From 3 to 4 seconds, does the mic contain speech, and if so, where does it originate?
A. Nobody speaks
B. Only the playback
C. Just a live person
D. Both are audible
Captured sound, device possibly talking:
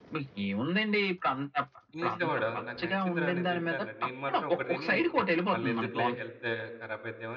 D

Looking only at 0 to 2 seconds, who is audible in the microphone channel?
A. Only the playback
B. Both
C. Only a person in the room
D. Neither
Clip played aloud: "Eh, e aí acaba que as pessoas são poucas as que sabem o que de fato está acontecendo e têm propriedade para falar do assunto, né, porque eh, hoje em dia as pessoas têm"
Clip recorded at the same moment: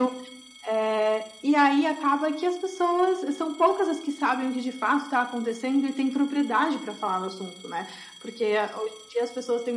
A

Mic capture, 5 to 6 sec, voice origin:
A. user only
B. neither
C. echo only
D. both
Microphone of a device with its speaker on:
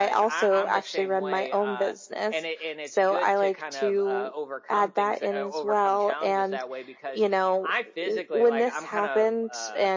C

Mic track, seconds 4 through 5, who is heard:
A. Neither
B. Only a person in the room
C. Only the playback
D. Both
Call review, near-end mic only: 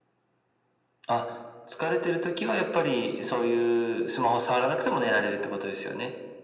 C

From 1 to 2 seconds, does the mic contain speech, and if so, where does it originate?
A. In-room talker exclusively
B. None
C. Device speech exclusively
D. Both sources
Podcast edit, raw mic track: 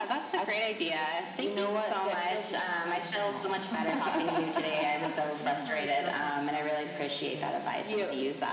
C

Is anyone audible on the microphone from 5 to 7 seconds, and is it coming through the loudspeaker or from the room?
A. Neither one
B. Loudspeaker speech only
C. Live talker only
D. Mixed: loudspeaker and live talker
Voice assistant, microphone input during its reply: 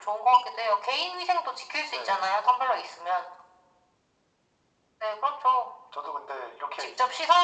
B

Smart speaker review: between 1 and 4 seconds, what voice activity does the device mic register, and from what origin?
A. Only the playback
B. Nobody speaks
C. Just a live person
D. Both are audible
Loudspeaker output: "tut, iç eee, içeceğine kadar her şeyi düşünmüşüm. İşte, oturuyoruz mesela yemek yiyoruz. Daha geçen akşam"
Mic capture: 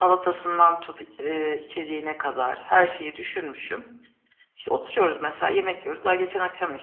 A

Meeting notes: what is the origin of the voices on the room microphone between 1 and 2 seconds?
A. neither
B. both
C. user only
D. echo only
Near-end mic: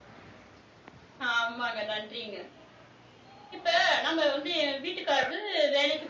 D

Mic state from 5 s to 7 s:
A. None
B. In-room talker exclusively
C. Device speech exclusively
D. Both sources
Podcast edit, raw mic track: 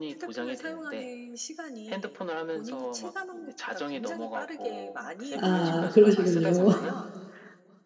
D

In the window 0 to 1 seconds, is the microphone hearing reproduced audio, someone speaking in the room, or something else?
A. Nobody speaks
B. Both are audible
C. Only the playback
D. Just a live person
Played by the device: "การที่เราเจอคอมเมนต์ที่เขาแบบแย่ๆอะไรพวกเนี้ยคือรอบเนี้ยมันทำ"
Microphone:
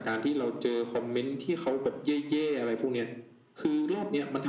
C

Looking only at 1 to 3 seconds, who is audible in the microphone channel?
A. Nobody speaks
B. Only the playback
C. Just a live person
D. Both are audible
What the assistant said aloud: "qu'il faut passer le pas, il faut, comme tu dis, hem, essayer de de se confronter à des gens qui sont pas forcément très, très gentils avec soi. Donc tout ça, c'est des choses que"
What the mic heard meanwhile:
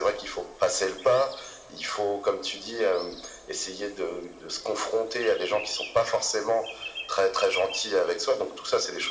B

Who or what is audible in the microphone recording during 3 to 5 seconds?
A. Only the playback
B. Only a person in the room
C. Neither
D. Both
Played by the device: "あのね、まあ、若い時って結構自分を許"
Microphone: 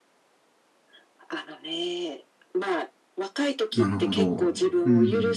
D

